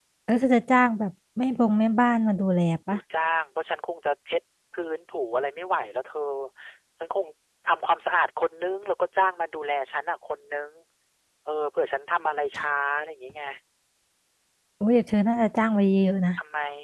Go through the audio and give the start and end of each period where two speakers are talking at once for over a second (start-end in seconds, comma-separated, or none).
none